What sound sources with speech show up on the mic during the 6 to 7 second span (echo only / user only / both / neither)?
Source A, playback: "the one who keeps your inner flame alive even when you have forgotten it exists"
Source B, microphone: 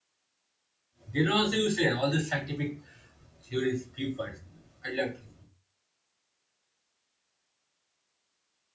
neither